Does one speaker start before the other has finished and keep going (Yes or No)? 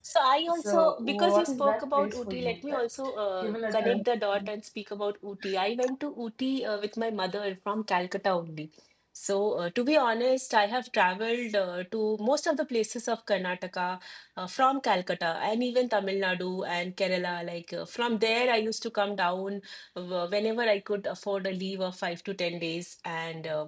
Yes